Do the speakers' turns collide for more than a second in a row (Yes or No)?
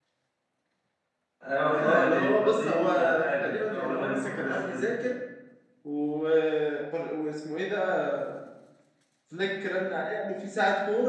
Yes